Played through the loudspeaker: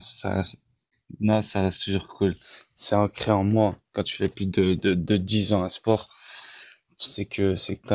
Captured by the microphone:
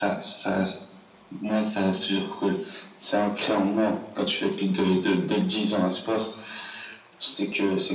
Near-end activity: none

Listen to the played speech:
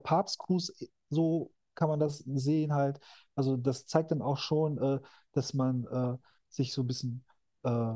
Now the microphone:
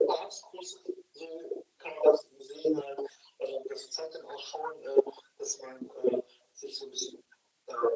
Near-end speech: none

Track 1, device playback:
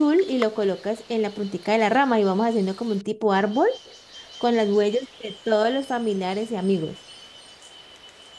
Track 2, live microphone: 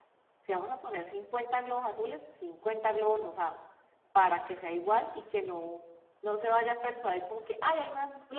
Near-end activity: present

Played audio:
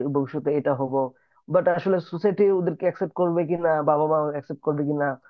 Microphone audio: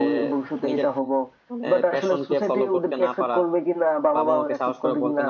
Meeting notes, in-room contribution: present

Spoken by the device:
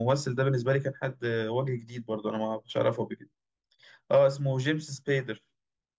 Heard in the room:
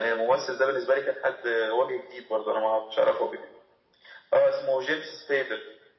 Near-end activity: none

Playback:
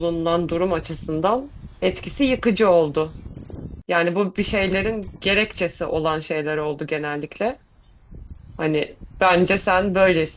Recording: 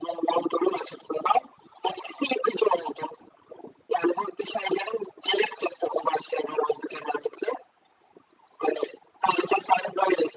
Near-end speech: none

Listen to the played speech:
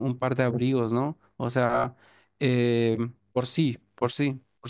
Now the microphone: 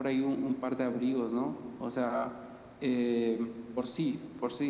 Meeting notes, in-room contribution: none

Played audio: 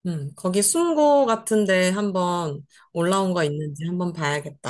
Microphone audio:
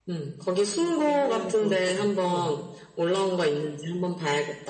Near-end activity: present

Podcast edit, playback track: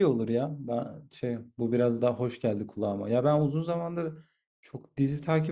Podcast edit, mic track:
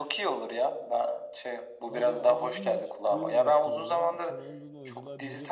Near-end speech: present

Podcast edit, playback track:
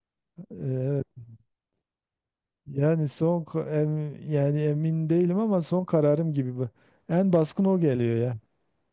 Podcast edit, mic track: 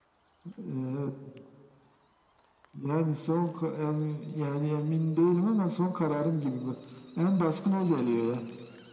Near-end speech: none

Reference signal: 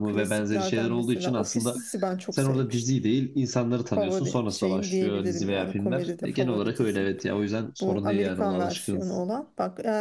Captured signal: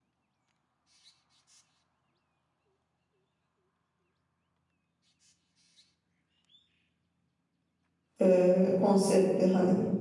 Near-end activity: present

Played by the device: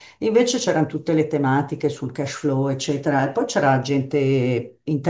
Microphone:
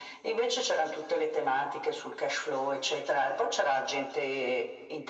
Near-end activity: none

